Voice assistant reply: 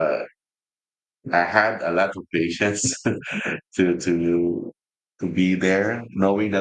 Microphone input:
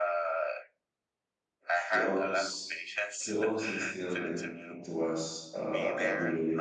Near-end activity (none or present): present